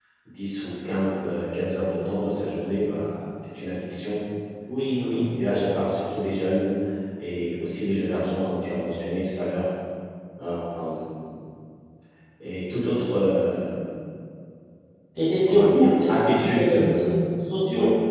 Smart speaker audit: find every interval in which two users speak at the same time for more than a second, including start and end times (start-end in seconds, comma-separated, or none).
15.4-17.1